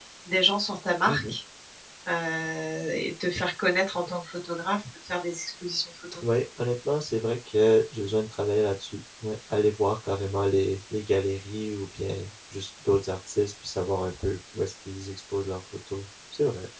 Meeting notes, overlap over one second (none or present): none